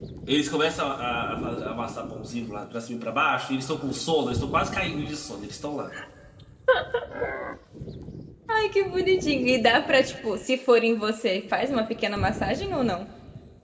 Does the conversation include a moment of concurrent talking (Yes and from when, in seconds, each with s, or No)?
No